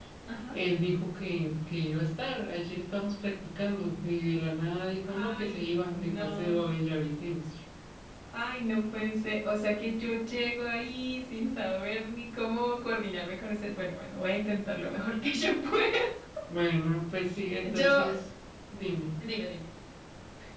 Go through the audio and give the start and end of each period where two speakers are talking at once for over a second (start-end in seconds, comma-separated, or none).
5.1-6.6